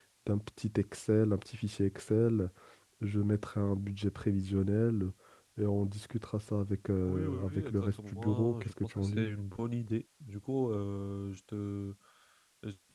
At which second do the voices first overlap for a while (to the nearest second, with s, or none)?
7 s